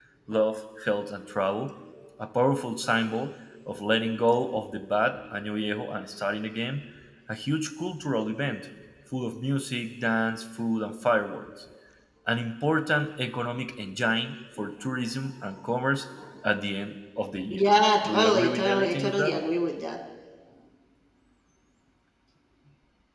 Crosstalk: present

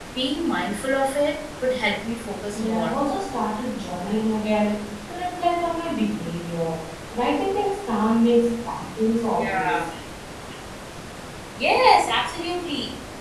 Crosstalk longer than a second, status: none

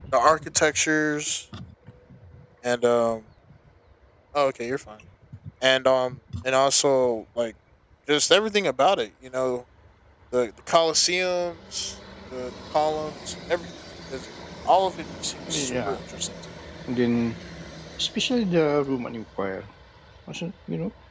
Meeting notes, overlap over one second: none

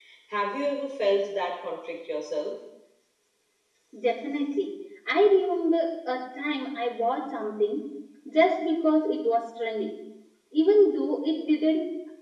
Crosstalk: none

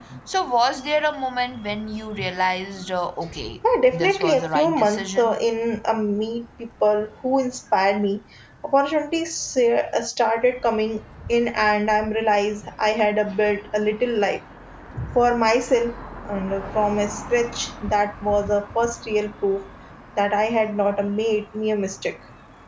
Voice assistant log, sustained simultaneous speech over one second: present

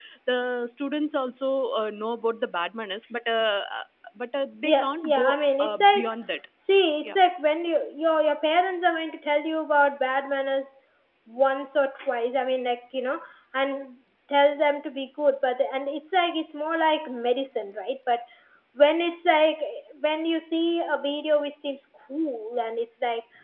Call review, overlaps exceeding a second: present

